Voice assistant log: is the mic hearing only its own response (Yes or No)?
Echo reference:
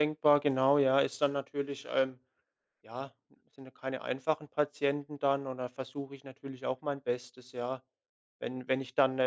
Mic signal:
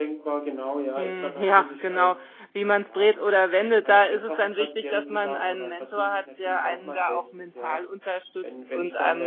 No